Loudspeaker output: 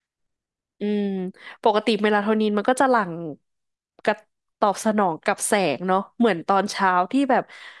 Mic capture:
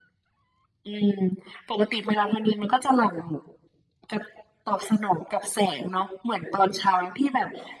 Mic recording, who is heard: echo only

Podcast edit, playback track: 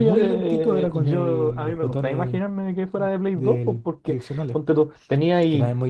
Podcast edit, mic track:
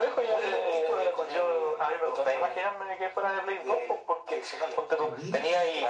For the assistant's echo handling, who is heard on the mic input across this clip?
both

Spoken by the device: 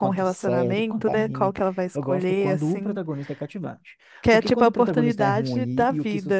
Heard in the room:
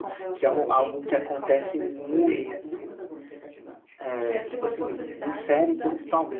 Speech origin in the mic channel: both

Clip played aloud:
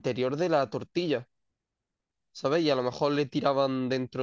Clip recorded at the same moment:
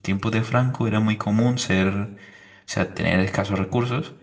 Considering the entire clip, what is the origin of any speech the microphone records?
user only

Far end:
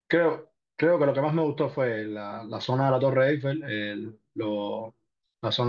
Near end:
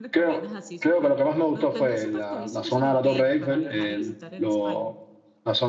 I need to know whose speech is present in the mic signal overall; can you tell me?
both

